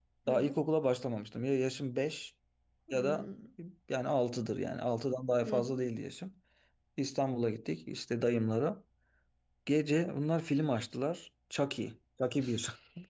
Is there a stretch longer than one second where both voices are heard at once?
No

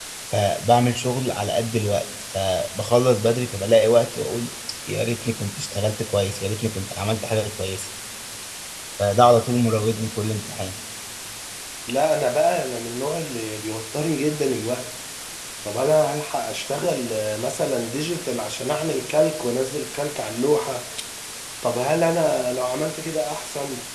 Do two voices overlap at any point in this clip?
No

